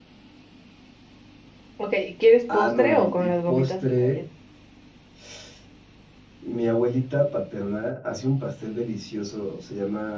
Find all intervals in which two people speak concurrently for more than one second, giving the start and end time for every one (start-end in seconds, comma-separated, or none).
2.5-4.2